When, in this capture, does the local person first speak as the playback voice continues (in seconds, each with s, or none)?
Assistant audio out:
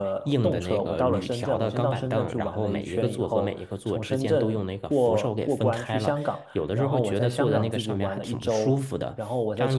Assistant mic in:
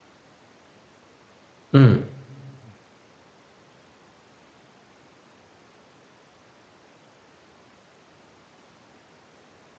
1.7 s